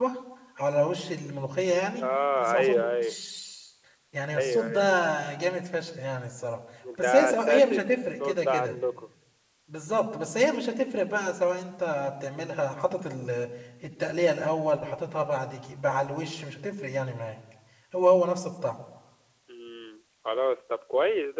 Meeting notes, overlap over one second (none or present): present